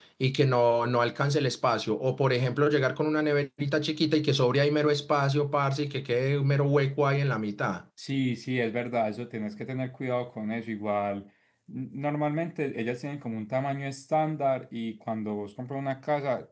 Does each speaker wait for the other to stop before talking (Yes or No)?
Yes